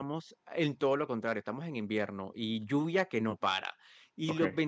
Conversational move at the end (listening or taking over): listening